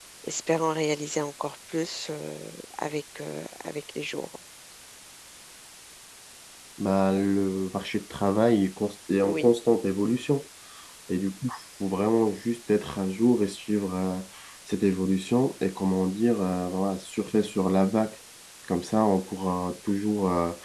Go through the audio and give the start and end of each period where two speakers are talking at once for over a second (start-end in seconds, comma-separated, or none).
none